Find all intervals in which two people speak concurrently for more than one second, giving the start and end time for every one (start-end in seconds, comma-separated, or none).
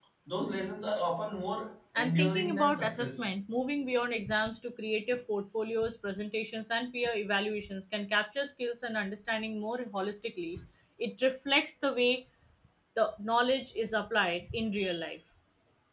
1.9-3.2